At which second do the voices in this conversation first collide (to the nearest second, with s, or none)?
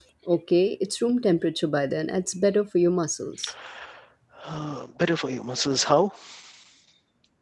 none